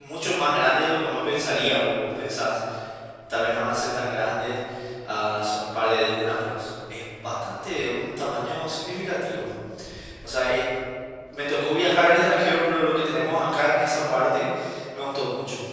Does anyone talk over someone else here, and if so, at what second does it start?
none

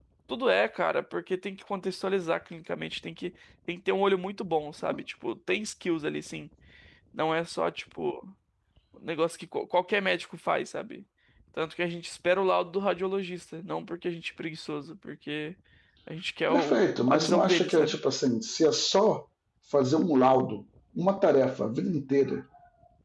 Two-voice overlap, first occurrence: 16 s

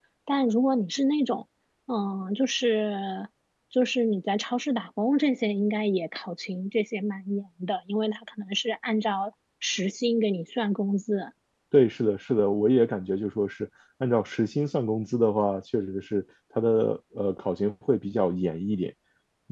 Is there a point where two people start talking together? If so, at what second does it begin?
none

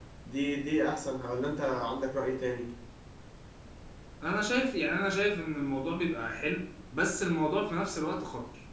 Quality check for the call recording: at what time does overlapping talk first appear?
none

